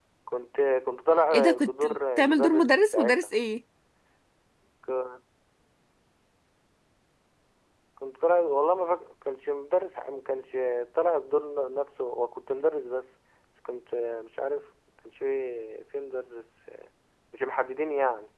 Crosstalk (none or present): present